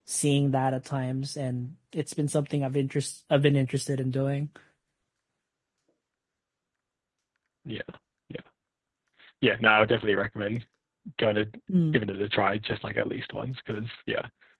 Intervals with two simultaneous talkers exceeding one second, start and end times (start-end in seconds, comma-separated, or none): none